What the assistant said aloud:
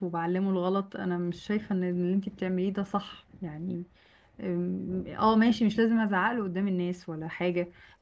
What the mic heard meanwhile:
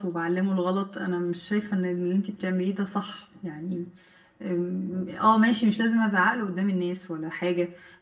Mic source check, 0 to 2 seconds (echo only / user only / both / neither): echo only